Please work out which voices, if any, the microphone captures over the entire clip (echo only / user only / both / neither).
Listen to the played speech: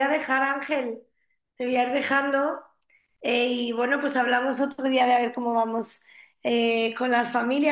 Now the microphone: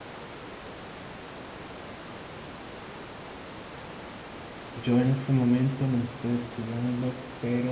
user only